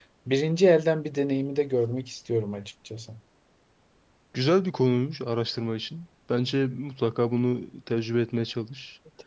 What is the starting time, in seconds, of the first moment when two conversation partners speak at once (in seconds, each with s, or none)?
none